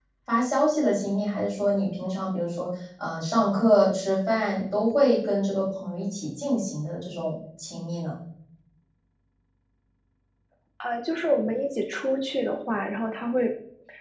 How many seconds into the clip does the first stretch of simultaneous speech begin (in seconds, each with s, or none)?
none